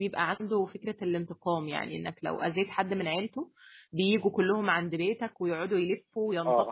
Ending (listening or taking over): taking over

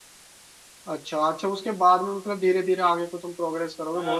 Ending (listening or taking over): taking over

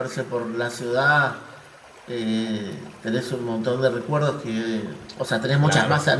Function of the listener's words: listening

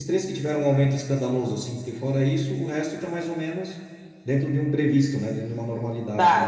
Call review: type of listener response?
taking over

